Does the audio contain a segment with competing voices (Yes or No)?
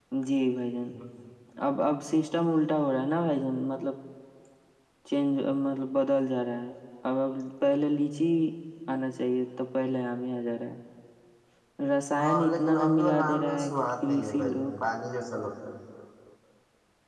Yes